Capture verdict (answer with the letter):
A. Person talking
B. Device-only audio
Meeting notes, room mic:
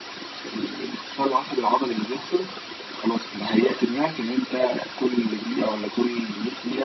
B